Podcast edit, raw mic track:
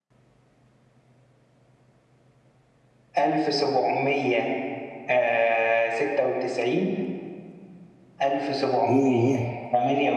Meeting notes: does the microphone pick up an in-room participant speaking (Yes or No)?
Yes